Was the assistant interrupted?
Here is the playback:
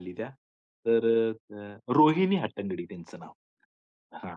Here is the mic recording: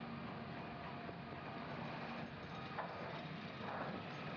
No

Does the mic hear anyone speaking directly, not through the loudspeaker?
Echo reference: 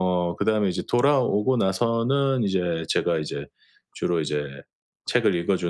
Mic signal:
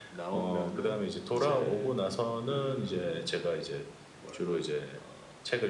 Yes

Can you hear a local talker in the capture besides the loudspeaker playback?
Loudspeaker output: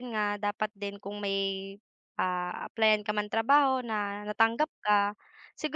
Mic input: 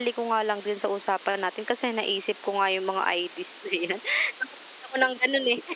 Yes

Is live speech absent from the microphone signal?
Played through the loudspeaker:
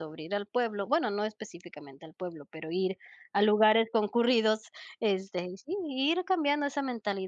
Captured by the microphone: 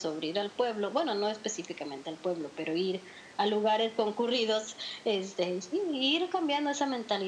Yes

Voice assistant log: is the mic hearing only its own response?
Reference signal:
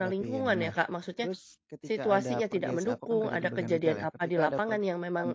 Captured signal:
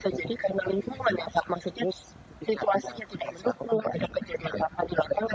Yes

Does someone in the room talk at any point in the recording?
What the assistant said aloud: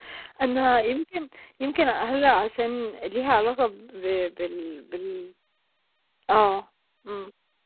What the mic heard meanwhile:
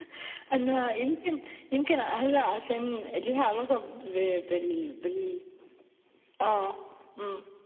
No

